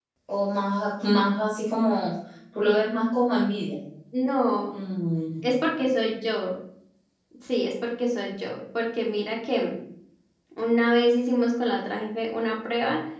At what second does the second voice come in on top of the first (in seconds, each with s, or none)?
none